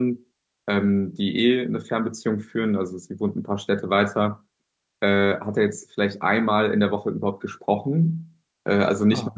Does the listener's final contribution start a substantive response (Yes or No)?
No